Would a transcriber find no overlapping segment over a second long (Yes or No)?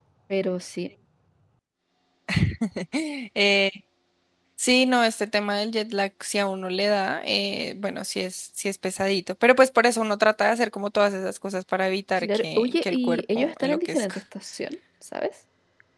No